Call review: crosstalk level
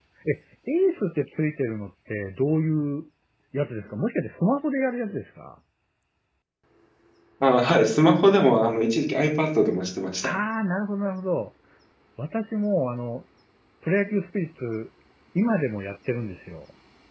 none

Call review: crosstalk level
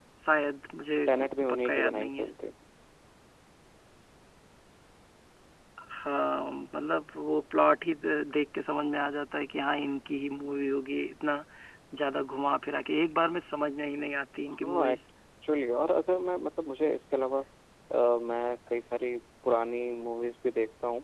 present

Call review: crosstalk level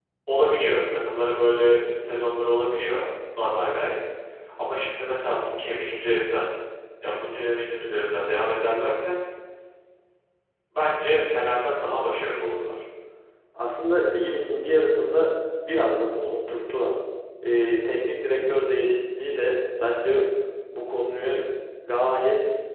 none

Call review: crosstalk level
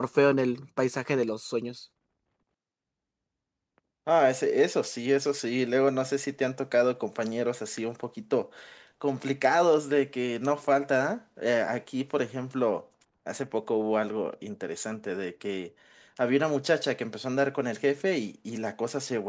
none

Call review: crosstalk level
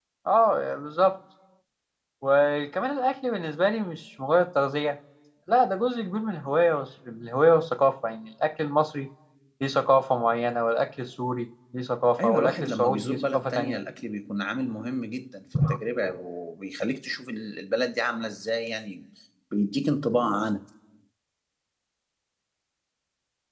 present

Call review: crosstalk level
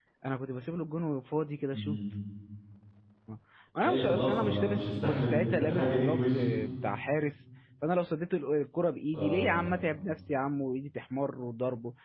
present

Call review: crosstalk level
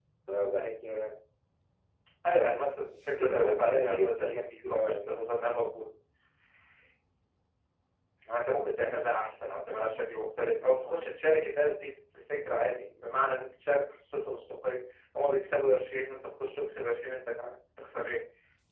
present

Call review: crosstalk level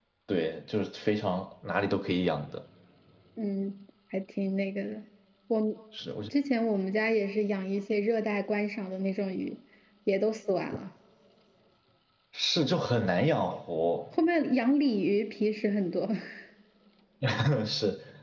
none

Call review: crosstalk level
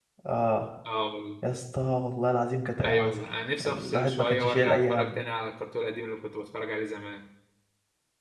present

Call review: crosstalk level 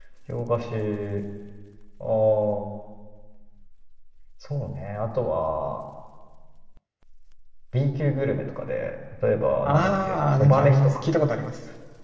present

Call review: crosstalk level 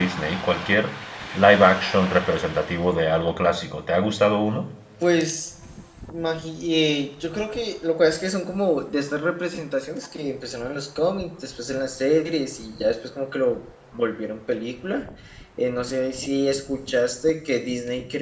none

